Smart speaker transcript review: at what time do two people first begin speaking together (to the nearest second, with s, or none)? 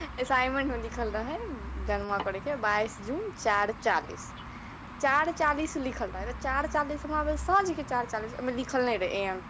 none